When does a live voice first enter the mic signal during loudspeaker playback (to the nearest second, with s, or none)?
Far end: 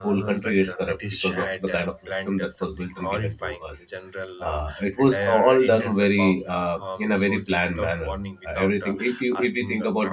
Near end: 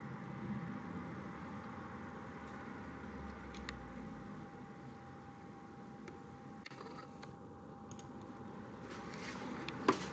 none